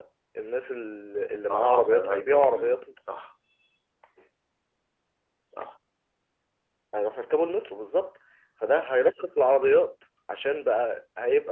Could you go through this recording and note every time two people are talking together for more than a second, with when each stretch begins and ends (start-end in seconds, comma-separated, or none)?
1.5-2.7